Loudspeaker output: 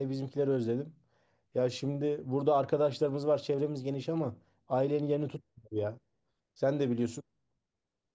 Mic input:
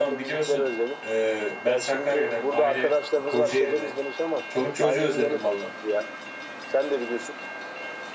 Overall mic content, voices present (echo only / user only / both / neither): both